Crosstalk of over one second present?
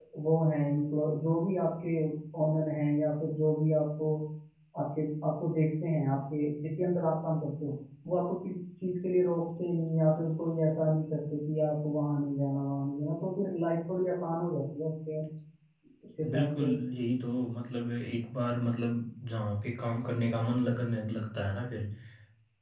No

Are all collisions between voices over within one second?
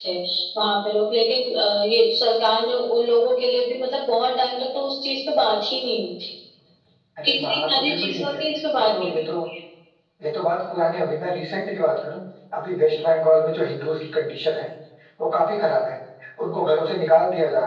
No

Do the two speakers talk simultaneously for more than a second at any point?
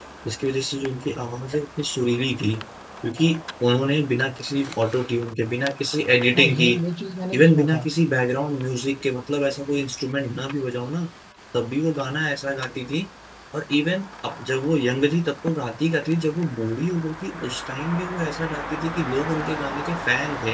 No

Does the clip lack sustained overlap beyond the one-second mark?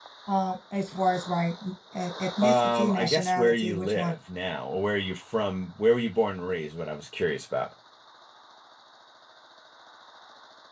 No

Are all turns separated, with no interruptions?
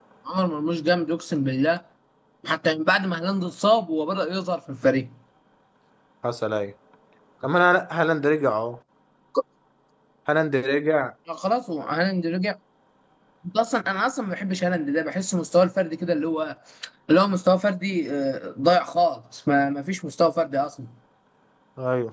Yes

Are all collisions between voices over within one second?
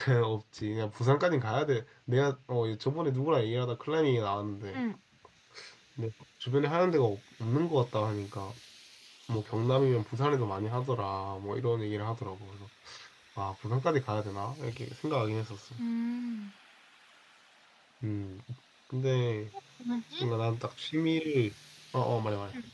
Yes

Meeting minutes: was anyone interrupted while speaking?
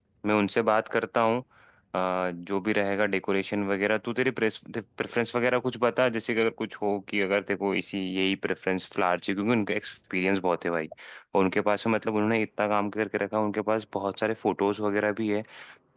No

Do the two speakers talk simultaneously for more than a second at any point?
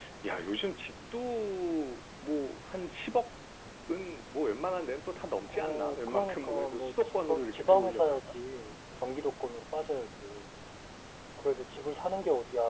Yes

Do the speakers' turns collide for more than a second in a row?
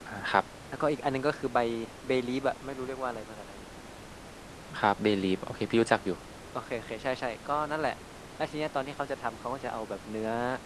No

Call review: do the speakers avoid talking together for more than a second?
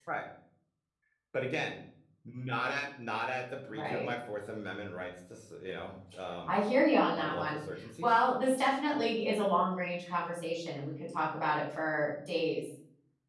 Yes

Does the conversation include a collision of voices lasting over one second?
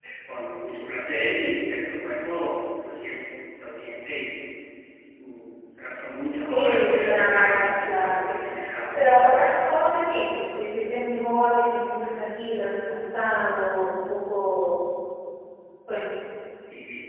Yes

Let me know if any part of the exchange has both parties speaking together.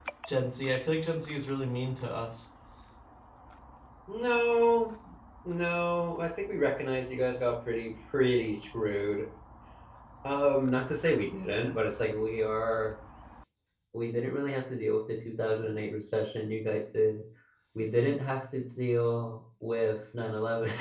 No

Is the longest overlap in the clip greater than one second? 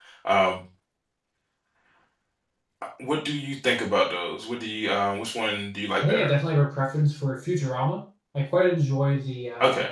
No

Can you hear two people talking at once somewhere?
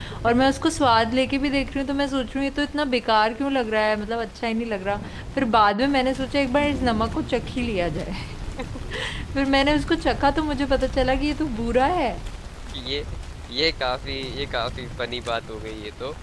No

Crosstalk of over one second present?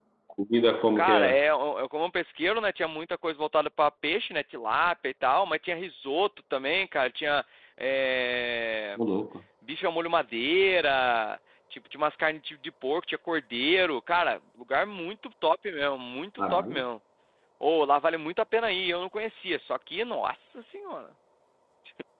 No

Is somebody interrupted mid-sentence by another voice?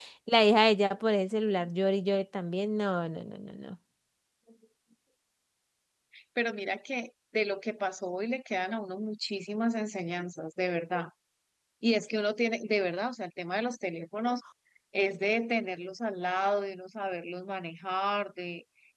No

